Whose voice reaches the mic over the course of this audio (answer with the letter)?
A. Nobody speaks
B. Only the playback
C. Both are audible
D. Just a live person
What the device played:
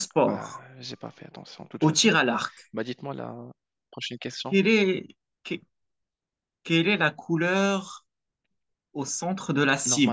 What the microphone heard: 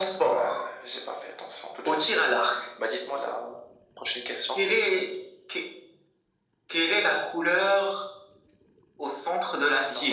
B